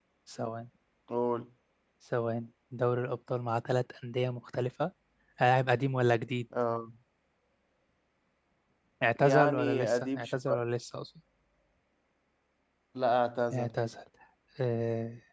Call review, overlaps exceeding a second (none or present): present